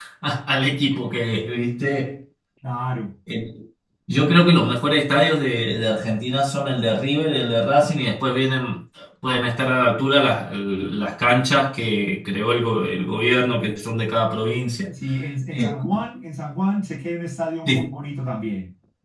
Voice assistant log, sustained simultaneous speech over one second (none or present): none